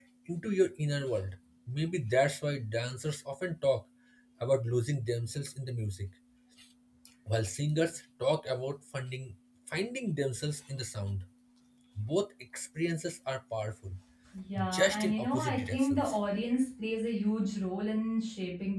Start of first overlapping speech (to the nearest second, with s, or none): 15 s